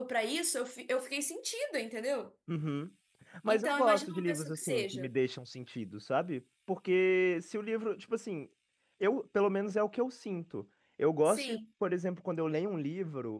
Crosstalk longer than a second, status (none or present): present